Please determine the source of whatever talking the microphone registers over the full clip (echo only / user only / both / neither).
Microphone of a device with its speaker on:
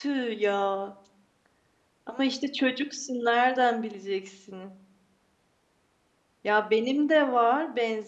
user only